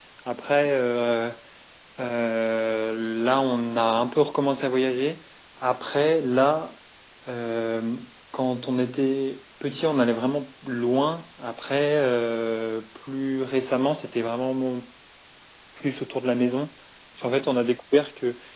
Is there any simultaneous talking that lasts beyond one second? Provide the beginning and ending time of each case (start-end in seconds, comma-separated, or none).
none